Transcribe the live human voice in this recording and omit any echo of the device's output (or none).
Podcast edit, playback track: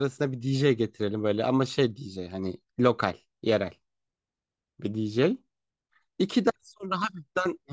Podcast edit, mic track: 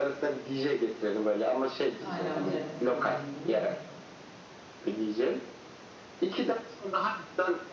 Aynen bilet isteyeceksin değil mi?